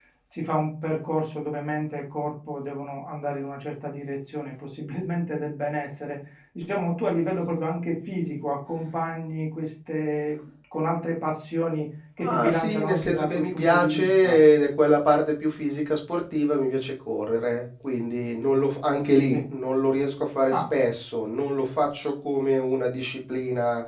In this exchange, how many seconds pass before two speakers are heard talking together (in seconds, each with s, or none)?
12.2 s